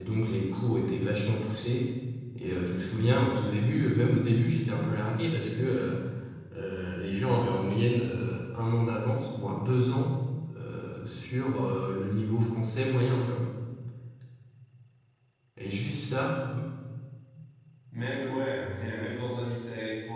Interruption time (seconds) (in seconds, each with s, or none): none